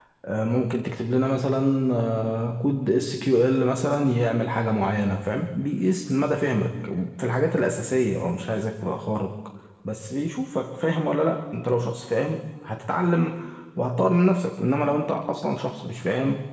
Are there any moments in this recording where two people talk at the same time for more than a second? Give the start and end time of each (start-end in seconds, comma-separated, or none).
none